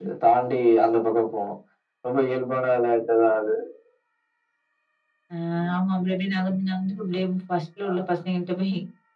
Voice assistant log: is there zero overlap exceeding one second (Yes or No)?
Yes